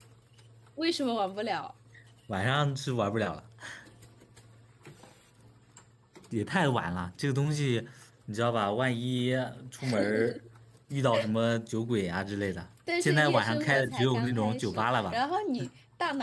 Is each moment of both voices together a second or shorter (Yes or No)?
No